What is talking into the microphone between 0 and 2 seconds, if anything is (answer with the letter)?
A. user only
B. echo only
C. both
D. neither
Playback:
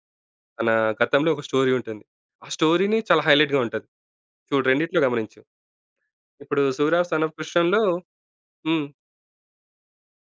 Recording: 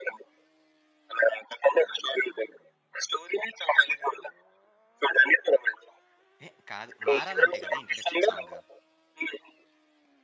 B